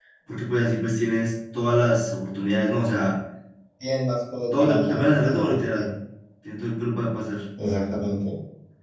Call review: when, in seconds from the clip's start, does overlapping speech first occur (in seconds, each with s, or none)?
4.5 s